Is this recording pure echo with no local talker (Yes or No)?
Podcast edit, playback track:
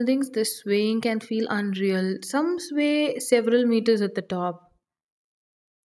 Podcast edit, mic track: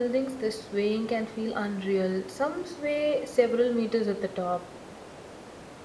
Yes